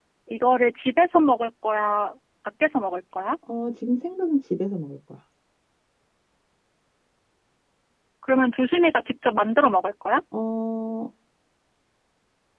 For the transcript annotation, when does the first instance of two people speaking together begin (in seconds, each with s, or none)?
none